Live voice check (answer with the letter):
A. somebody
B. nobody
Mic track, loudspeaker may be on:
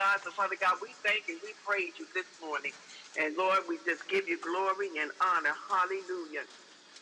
B